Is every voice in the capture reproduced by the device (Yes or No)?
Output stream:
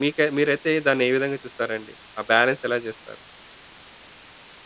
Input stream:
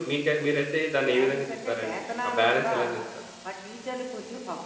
No